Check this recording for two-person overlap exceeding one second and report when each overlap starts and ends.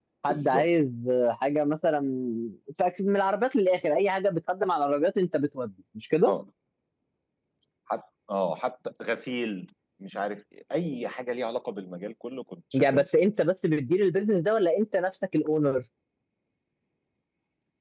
none

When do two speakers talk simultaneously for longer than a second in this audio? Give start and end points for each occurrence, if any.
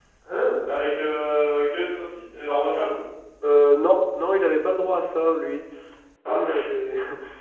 none

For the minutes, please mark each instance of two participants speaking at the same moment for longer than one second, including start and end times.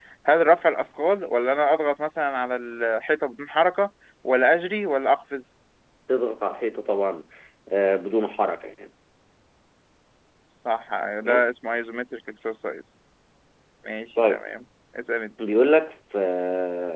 none

